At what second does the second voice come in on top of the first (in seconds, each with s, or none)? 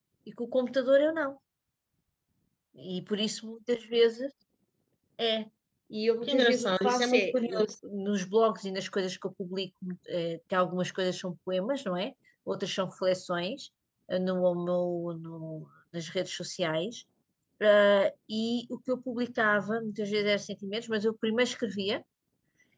6.2 s